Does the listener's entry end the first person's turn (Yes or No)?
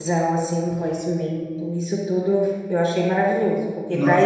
No